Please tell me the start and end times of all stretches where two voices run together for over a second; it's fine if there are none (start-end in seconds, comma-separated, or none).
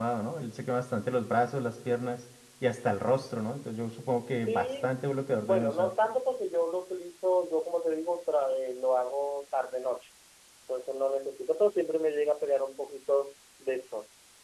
4.5-5.9